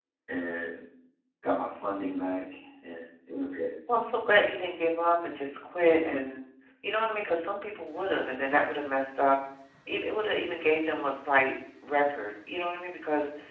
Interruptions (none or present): none